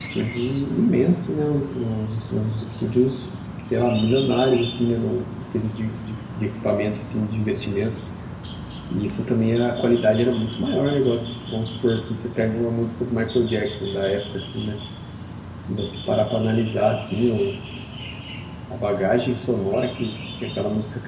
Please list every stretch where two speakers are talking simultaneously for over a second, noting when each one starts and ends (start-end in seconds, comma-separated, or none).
none